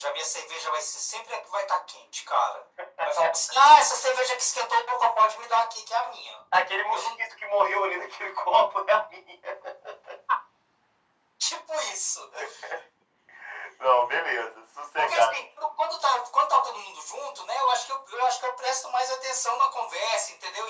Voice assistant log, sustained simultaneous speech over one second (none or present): none